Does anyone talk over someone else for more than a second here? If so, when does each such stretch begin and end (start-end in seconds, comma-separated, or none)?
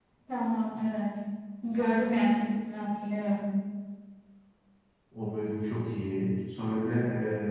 none